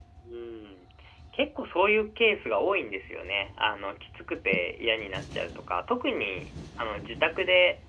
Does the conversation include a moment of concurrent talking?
No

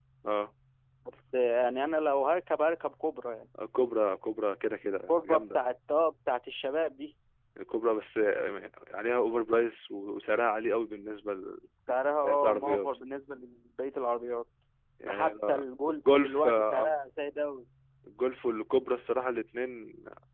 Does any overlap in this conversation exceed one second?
Yes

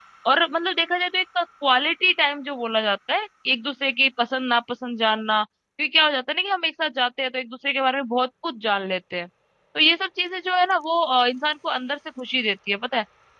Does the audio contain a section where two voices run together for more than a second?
No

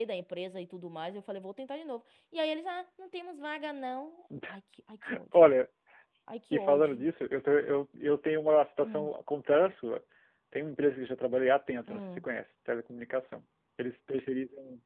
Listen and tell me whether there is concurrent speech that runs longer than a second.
No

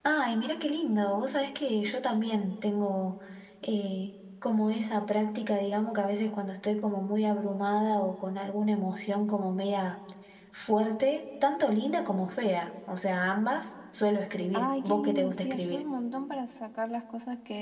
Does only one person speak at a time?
No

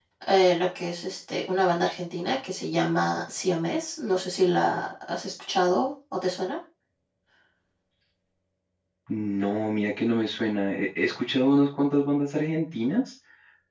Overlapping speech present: No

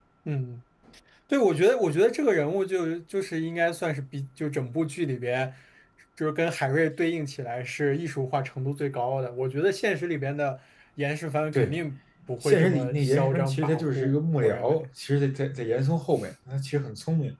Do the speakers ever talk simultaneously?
Yes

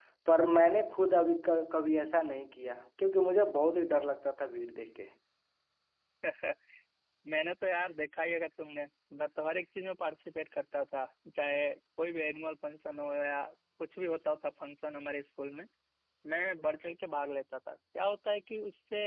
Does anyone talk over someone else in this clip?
No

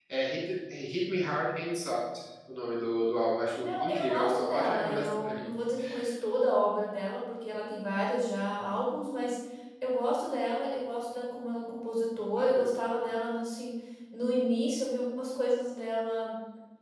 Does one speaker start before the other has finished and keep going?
Yes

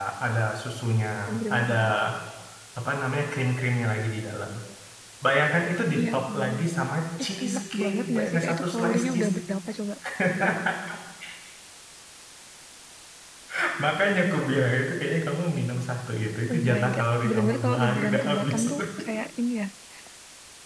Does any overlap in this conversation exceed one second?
Yes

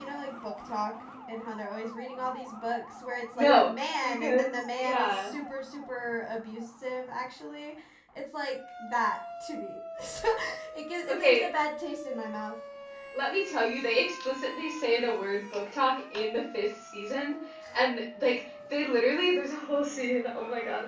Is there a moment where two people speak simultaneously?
Yes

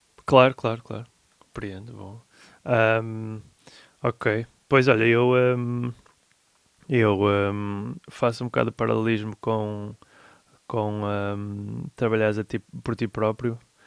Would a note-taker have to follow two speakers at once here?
No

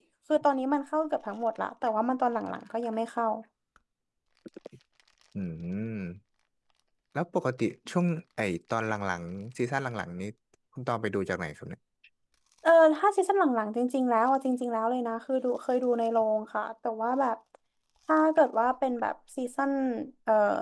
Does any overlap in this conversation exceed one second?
No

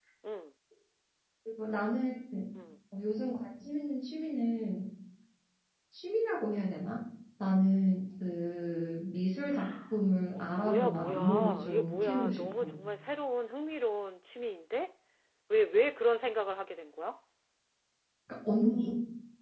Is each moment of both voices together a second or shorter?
No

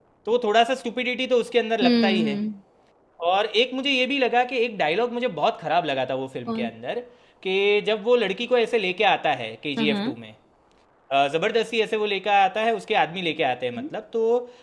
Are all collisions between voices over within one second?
Yes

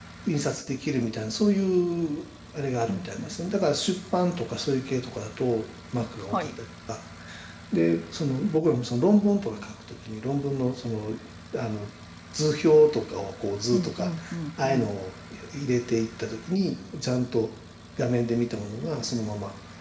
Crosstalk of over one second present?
No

